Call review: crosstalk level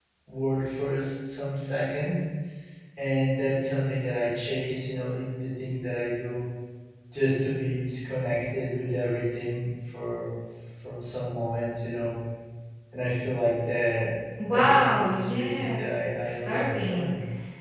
present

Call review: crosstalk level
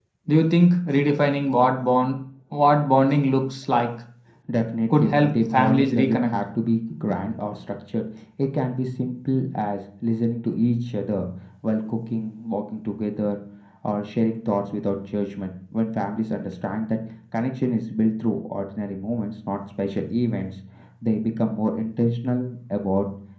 present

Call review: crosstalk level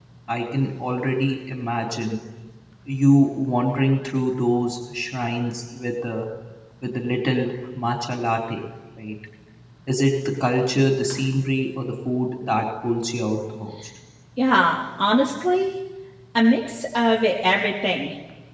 none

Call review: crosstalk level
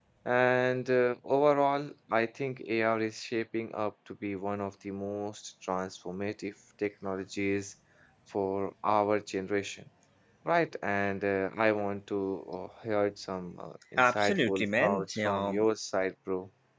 present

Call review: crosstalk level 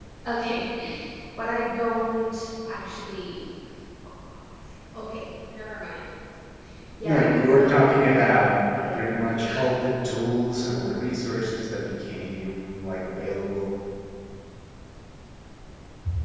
present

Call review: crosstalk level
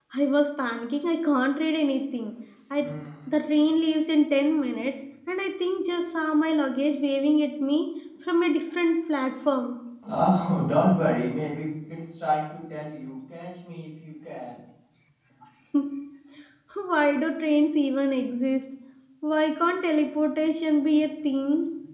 none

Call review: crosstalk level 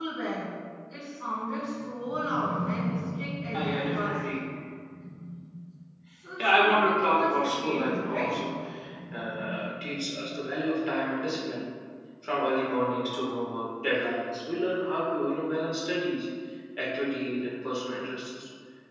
present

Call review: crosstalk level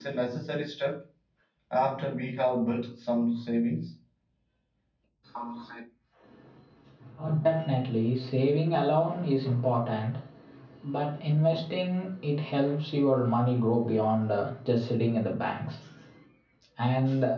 none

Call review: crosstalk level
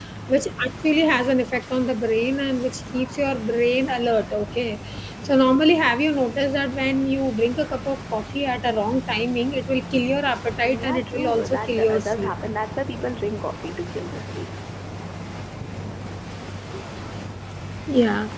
present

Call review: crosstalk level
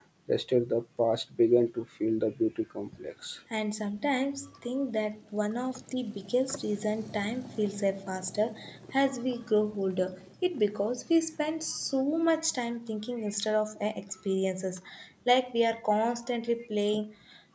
none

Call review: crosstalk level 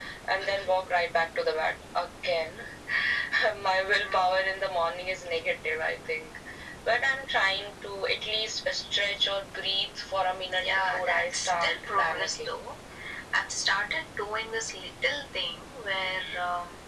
present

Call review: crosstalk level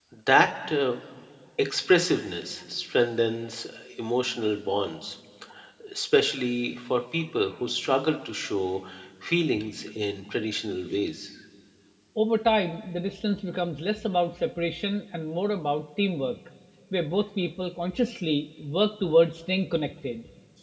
none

